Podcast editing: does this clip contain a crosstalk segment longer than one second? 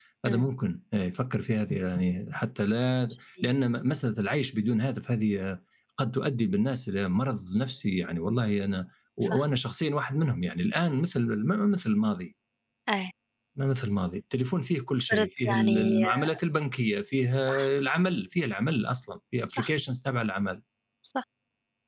Yes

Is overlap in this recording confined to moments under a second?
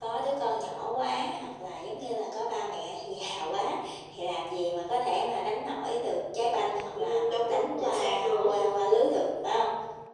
No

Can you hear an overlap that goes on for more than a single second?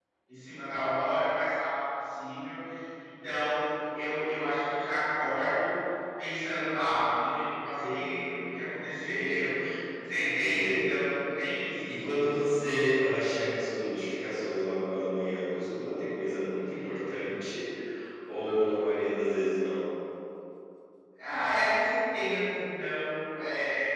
Yes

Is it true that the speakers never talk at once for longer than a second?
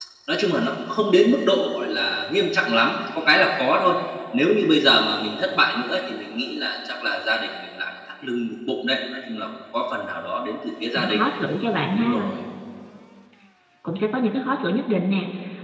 Yes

